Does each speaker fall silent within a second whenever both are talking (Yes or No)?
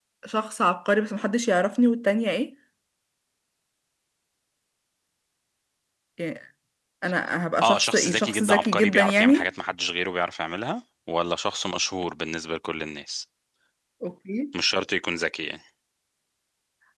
No